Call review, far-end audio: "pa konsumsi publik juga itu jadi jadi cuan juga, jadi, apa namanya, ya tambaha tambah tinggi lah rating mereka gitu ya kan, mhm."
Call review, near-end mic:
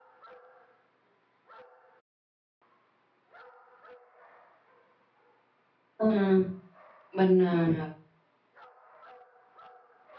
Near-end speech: present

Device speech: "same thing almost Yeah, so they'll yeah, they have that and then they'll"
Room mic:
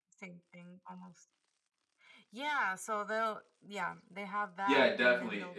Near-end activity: present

